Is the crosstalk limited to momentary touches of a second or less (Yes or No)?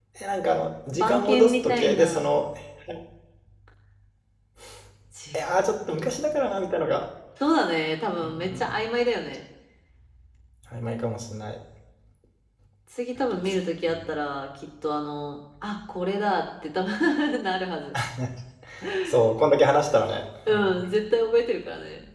No